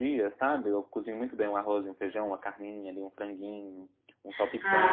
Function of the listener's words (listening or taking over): taking over